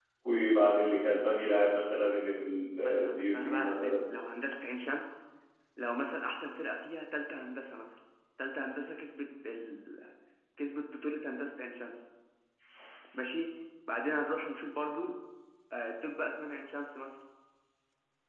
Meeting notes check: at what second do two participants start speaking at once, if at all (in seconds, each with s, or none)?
2.8 s